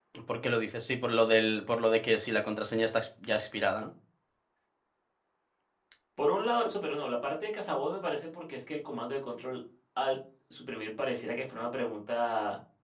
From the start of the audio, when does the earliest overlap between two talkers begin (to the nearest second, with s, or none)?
none